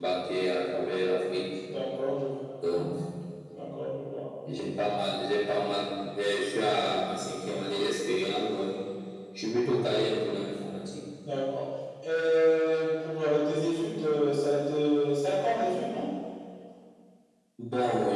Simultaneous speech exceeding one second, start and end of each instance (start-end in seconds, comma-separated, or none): none